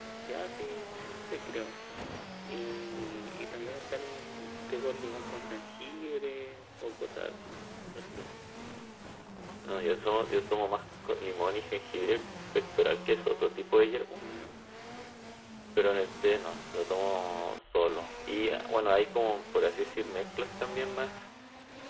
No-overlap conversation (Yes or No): Yes